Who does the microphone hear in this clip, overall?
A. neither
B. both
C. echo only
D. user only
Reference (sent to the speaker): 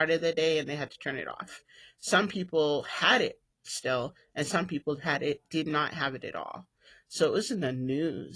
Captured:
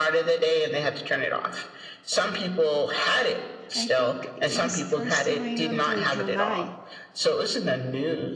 B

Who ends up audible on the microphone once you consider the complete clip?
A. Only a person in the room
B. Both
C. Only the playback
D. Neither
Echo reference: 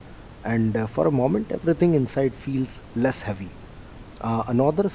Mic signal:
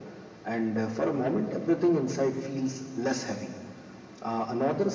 C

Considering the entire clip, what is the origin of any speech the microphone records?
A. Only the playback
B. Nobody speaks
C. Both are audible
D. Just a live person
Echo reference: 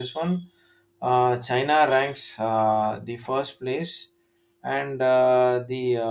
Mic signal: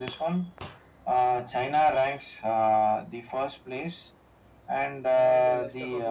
C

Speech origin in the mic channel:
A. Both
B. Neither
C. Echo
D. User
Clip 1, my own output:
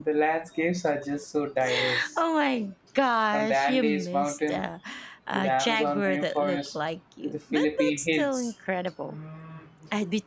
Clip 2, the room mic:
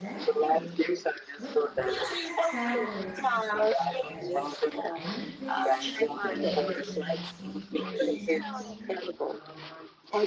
A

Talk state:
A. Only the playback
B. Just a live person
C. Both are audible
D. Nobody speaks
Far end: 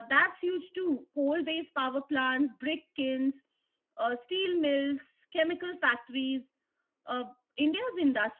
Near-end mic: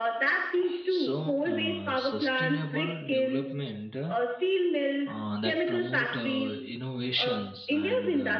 C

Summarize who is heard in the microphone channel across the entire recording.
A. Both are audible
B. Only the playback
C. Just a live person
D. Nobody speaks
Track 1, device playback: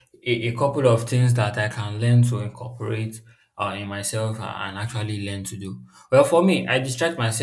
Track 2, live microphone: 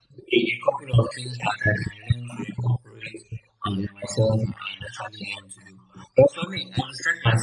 B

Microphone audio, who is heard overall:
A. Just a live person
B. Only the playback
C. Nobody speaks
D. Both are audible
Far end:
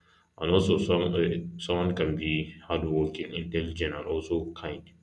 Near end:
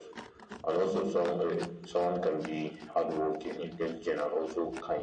B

